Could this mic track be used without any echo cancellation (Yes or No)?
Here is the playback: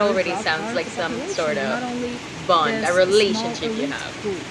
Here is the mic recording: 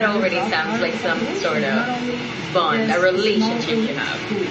No